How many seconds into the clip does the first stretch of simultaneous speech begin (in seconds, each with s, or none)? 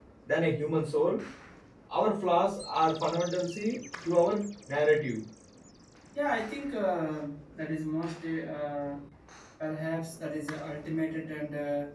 none